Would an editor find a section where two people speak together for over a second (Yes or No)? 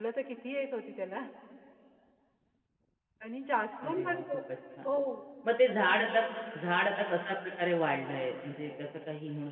No